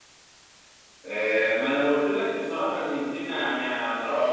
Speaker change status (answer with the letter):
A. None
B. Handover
B